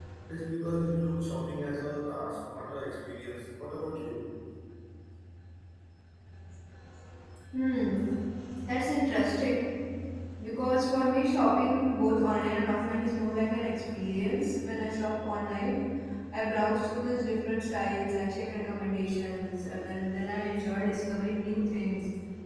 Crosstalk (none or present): none